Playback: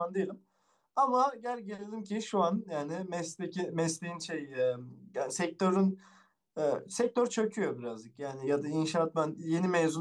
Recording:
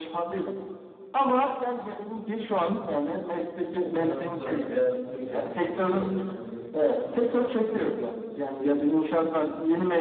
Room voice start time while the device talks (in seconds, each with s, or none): 3.9 s